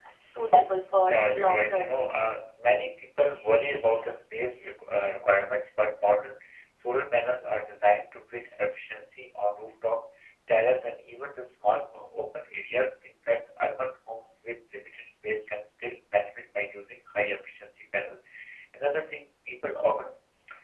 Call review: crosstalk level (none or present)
present